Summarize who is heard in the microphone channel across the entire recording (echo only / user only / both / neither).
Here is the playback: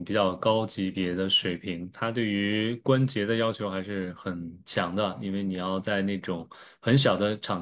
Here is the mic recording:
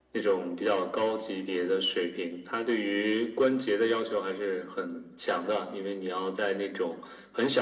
echo only